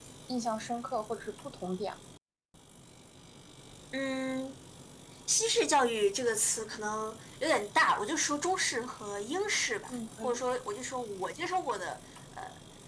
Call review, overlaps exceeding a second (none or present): none